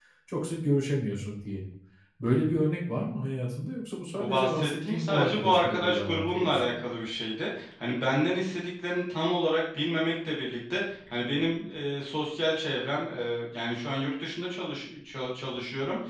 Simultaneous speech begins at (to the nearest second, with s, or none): 4 s